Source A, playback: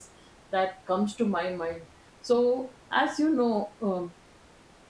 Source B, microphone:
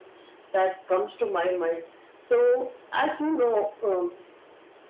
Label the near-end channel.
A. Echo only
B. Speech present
A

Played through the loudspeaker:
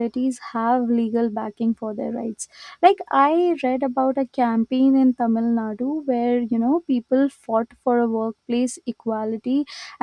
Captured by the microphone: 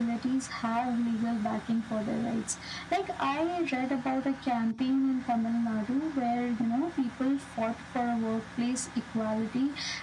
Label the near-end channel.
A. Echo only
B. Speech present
A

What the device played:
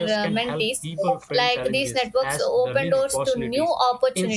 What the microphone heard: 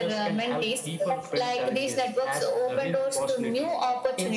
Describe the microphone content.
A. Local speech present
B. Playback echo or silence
B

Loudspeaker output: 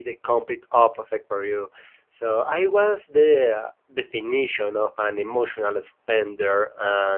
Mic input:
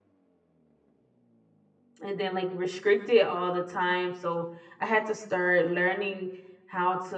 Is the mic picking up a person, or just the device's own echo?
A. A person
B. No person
A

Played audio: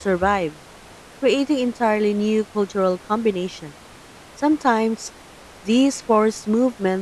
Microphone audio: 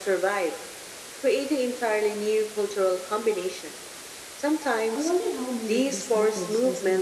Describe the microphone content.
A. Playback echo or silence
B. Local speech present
B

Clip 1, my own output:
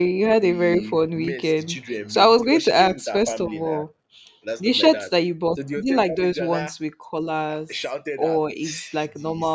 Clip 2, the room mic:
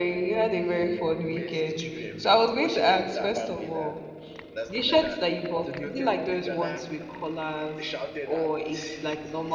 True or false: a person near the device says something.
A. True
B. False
B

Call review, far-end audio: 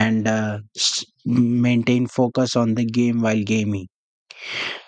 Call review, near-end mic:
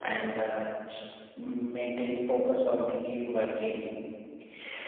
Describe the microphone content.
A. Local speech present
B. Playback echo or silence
B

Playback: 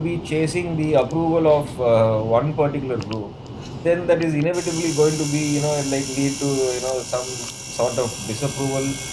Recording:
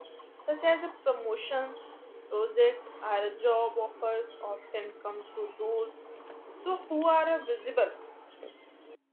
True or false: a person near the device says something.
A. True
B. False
A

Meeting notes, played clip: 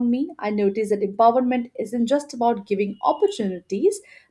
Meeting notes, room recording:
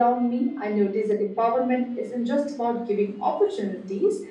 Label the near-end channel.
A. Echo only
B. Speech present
A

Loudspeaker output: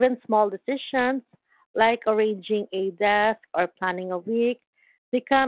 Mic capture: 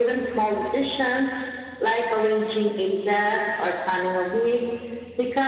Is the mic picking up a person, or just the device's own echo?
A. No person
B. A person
A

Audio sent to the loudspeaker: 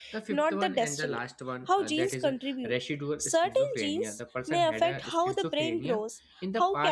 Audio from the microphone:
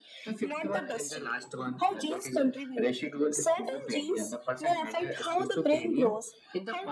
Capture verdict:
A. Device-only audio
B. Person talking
A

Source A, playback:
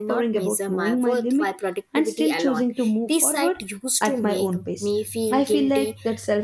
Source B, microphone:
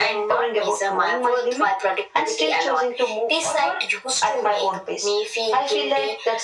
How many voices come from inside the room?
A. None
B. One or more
A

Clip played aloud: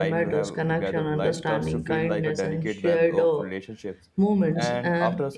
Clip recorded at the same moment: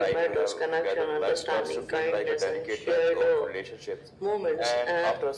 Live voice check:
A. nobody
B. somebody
A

